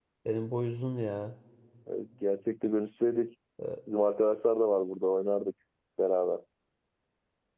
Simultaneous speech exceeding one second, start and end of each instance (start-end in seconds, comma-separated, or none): none